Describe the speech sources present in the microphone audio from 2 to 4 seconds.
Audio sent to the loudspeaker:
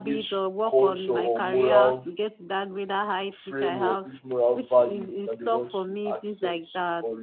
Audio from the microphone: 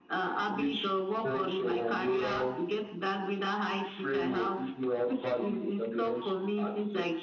echo only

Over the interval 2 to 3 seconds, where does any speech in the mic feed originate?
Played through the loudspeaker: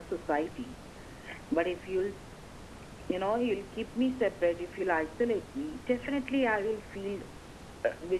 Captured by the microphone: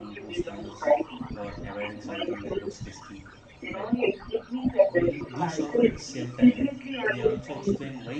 both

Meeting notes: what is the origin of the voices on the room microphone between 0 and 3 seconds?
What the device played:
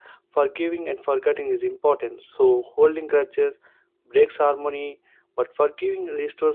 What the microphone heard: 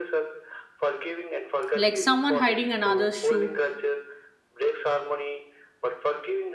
both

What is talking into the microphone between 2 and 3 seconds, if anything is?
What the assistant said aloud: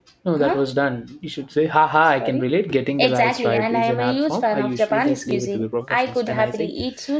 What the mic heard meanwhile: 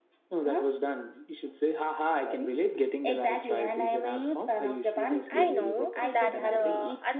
echo only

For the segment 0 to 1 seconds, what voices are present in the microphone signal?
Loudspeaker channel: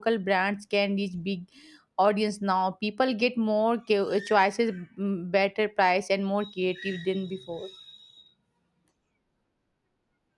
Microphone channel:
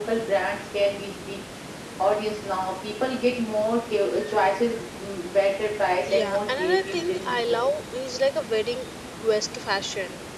echo only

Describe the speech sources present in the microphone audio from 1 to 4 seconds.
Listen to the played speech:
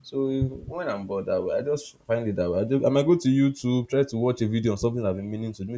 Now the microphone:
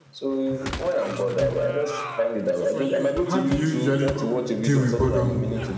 both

